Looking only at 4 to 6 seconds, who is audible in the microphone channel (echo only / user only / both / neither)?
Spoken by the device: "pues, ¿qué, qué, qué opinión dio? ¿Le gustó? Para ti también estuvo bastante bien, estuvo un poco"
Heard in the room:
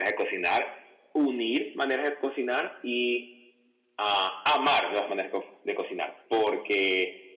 user only